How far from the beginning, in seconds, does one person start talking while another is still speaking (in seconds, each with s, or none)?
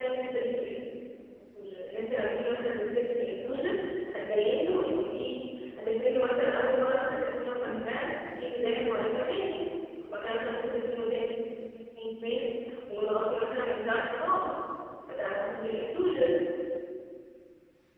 none